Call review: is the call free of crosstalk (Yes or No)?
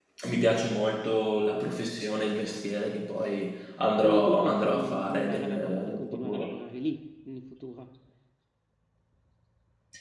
No